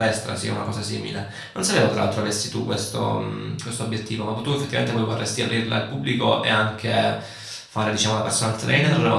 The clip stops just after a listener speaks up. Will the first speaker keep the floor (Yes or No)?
No